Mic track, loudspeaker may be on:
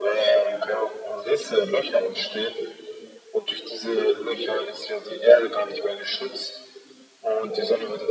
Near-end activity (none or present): none